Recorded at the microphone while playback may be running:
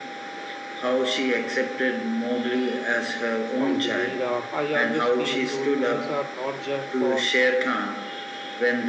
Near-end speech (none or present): present